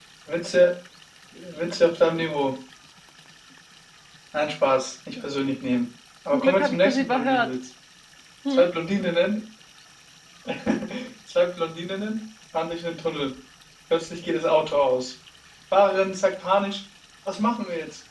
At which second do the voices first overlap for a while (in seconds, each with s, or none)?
6.3 s